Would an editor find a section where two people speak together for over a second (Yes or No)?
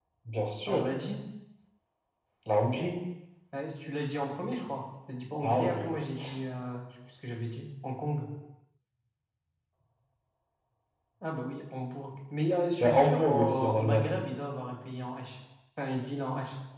Yes